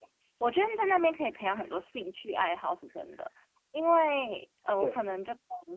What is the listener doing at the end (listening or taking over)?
listening